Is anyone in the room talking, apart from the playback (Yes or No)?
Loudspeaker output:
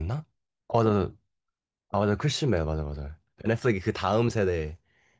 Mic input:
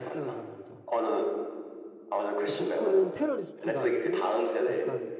Yes